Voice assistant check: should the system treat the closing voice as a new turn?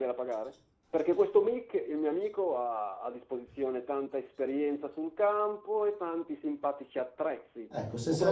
Yes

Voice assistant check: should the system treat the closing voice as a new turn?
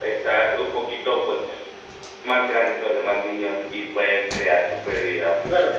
Yes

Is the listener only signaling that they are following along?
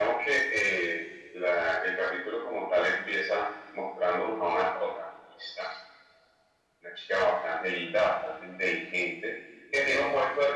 Yes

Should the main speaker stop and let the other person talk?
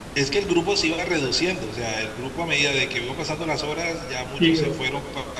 No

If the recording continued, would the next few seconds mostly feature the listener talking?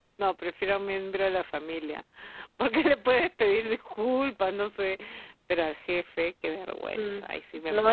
Yes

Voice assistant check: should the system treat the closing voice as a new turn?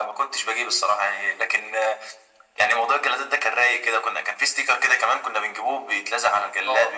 No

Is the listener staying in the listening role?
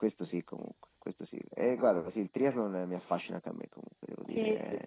No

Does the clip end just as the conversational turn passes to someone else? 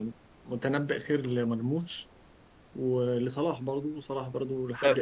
Yes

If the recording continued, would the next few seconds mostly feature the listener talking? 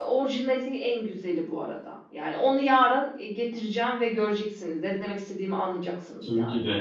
Yes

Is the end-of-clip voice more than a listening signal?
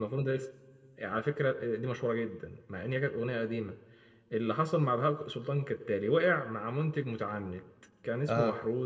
No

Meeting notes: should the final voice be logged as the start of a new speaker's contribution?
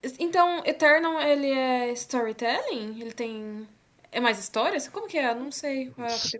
Yes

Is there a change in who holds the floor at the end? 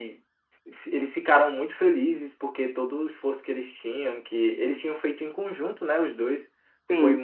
No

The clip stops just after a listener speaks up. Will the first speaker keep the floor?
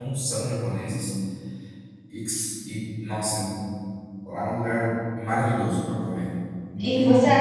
No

